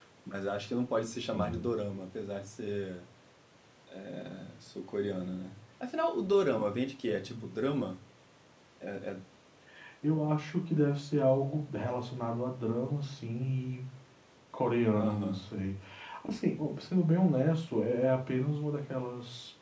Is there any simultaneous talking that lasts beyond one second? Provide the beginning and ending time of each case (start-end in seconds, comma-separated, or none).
none